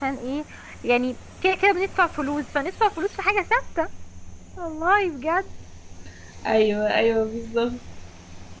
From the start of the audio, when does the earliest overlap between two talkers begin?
none

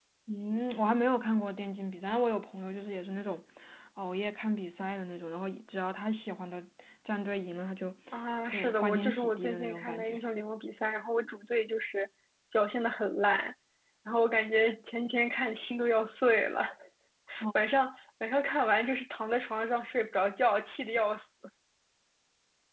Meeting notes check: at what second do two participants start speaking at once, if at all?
8.5 s

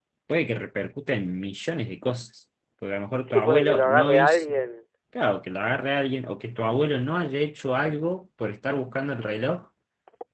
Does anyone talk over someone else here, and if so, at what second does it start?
3.2 s

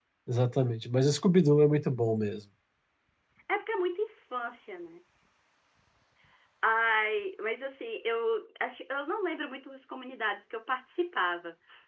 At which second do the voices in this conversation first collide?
none

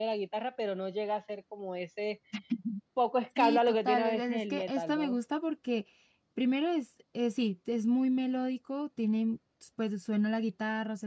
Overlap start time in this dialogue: 3.4 s

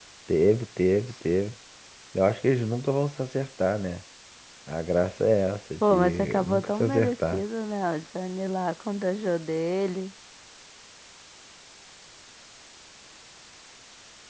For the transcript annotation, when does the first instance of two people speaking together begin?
5.8 s

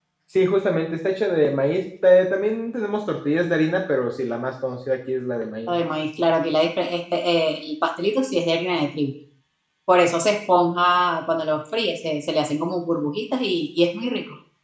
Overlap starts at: none

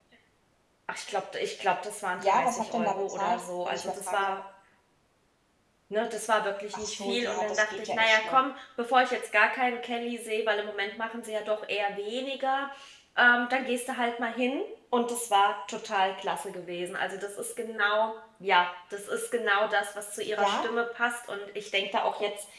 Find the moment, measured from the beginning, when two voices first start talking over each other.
2.2 s

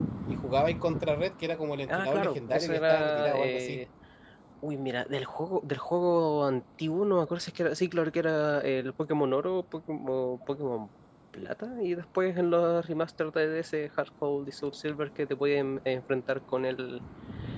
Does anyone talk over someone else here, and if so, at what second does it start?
1.9 s

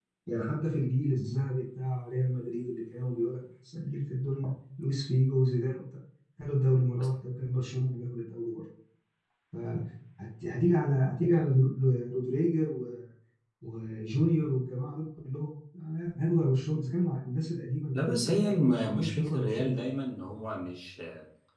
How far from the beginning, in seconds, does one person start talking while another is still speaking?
17.9 s

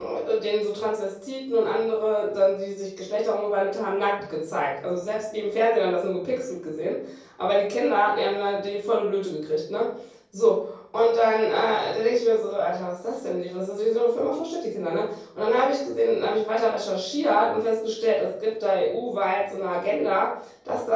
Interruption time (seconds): none

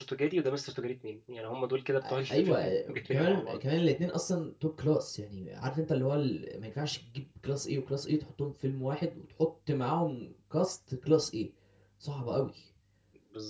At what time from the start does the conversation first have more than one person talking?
2.0 s

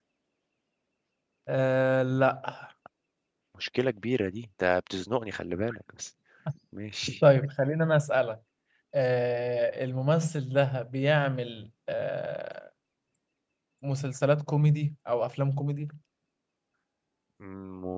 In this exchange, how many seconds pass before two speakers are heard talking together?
none

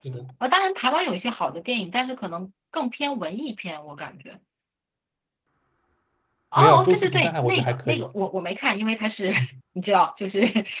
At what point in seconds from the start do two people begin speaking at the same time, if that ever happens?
6.6 s

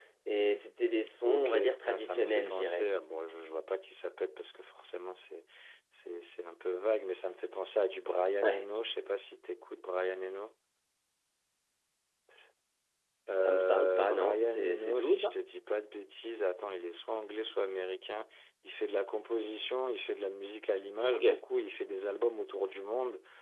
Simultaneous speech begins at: 1.2 s

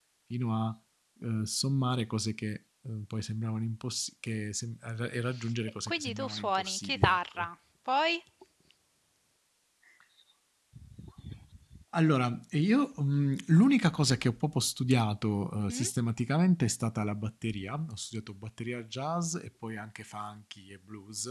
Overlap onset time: 5.9 s

